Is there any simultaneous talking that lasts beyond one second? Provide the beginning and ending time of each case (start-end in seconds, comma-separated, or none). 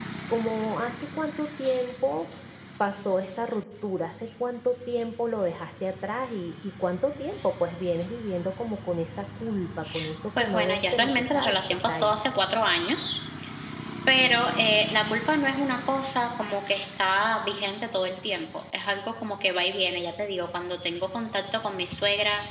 10.4-12.2